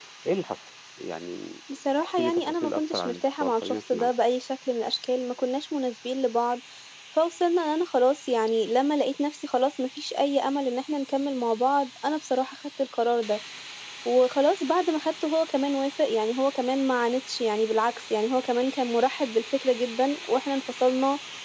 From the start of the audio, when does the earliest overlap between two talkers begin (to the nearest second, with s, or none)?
2 s